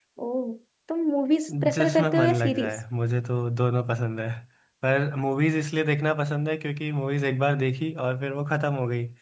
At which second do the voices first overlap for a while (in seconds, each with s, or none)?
1.5 s